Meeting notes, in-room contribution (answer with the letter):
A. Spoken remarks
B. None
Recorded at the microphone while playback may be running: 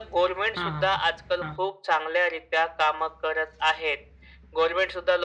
A